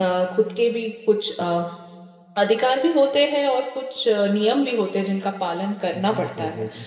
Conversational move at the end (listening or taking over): taking over